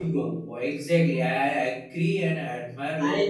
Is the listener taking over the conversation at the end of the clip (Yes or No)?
Yes